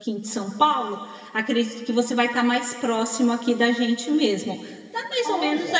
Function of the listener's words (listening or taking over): listening